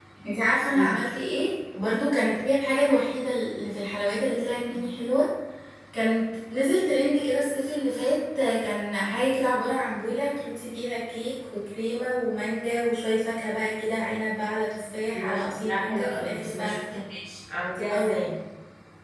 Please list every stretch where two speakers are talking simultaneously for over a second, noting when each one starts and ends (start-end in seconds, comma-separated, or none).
15.1-16.8